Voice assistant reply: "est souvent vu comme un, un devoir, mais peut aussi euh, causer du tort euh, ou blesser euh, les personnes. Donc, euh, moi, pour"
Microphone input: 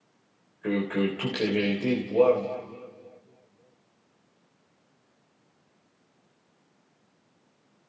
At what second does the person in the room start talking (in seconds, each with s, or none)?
0.6 s